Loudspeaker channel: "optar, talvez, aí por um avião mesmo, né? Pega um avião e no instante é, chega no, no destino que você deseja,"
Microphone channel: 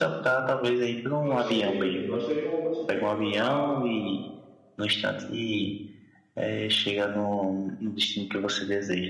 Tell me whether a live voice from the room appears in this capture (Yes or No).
Yes